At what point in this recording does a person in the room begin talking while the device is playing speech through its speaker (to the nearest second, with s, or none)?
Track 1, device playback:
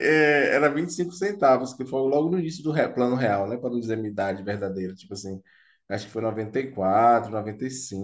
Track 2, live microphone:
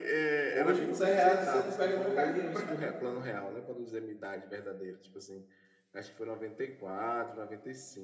1 s